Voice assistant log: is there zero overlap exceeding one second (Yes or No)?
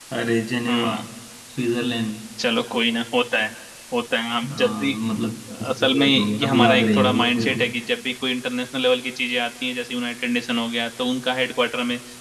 No